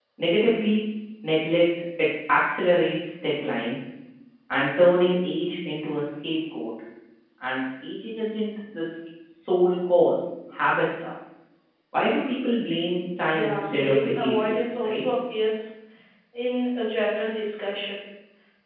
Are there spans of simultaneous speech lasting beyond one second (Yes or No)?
Yes